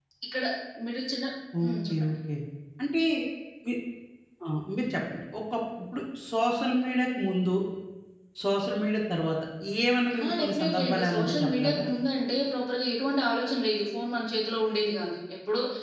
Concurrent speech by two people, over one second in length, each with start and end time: 10.2-11.8

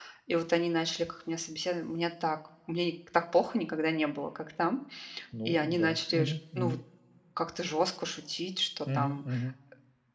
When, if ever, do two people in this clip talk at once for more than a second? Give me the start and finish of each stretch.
5.5-6.8

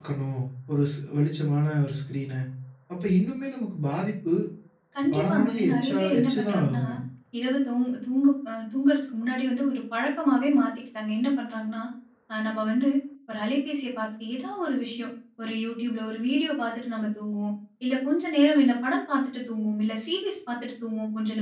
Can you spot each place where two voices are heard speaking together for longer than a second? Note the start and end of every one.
5.1-6.8

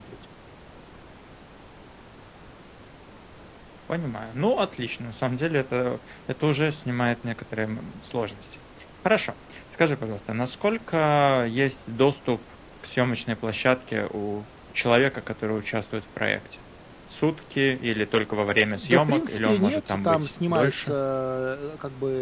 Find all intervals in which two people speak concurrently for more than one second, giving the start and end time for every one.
18.8-20.9

